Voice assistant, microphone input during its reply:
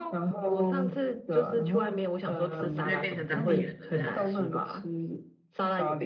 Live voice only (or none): 我就会变成当地人了这样。